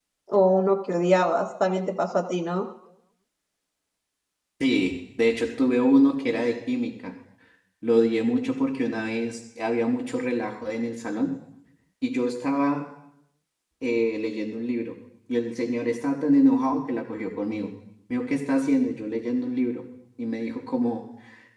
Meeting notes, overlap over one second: none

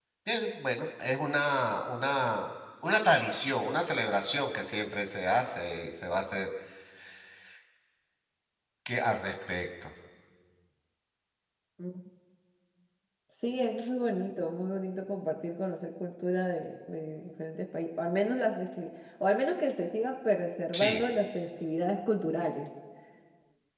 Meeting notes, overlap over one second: none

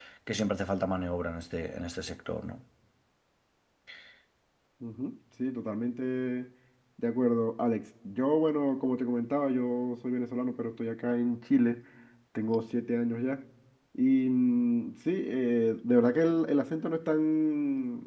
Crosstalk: none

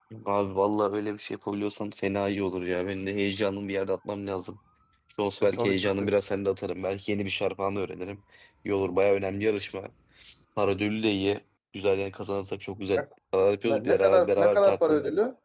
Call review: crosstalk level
present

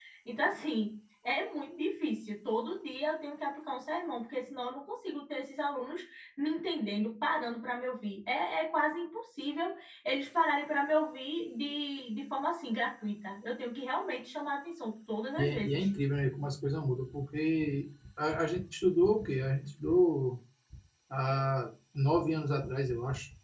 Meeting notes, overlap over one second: none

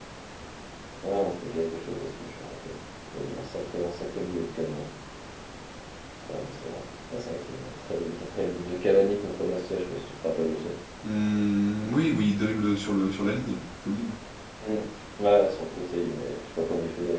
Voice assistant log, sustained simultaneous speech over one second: none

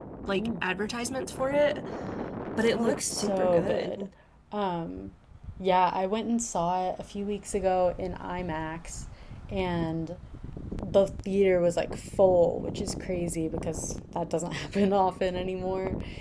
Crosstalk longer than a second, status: present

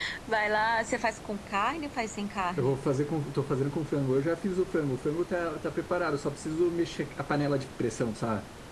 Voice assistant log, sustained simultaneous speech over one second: none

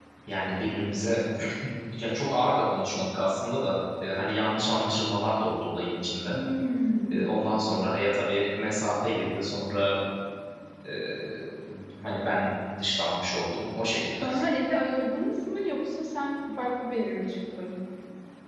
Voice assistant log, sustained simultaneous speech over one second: none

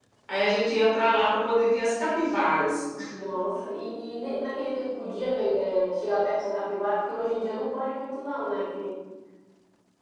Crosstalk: none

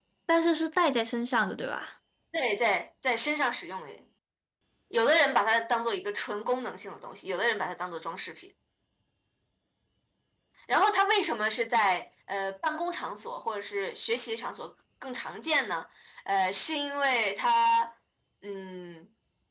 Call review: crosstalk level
none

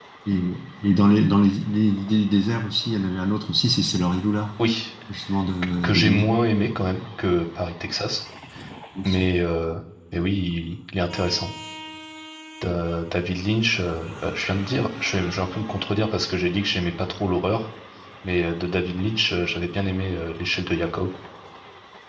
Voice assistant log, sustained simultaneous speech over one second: none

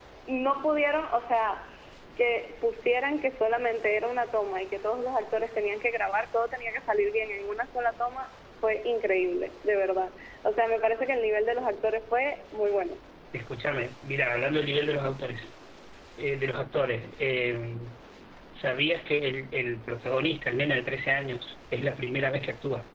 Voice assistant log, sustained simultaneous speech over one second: none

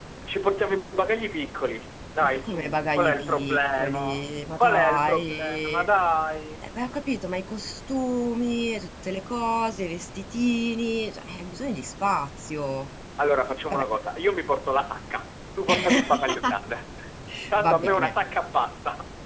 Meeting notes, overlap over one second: present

